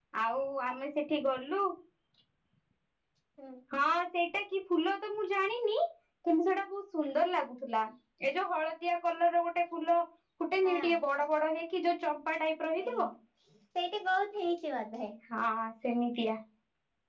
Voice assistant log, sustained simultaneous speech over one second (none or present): none